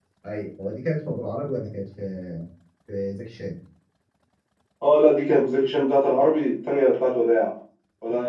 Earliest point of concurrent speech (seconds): none

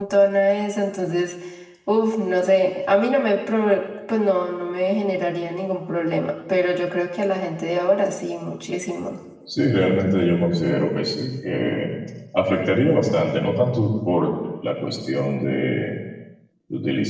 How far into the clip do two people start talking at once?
none

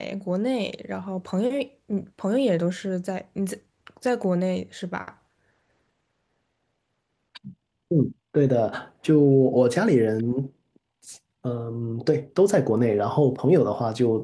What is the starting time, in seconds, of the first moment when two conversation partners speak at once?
none

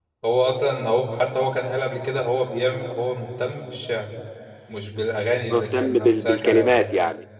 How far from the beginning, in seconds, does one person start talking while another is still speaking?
5.5 s

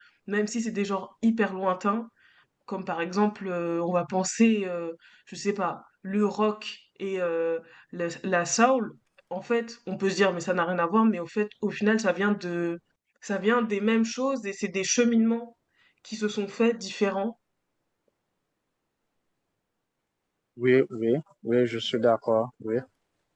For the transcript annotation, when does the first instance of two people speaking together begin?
none

